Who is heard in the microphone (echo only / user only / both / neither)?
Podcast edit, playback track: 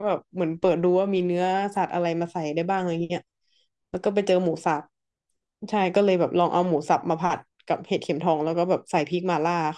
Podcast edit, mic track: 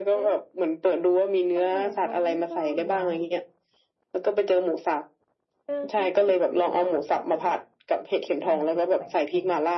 both